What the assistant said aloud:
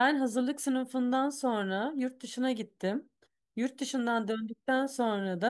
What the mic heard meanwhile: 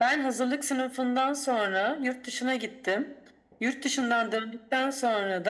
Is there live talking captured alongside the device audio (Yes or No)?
No